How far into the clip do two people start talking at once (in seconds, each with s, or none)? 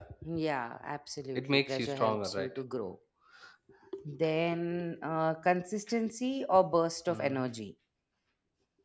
1.4 s